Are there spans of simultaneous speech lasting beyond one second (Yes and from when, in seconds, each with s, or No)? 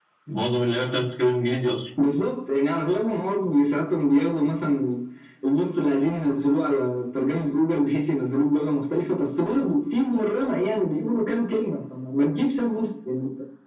No